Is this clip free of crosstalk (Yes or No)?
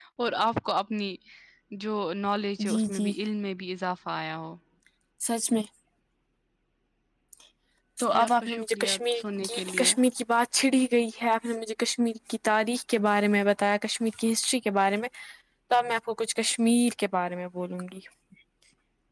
No